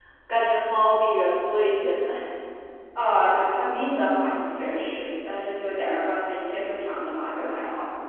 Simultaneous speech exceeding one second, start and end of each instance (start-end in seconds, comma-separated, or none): none